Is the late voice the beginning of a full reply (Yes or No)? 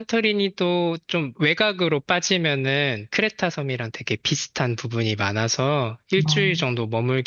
No